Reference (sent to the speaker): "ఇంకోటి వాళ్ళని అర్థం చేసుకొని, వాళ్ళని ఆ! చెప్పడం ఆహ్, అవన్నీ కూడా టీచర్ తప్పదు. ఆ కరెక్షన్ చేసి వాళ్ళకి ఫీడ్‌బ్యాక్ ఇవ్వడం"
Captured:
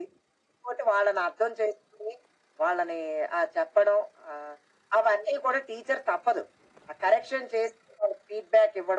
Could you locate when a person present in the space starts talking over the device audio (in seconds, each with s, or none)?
none